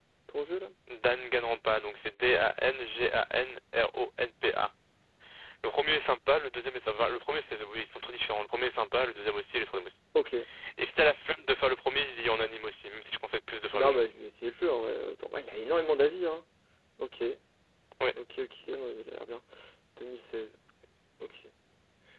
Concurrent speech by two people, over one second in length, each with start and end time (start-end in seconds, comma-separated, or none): none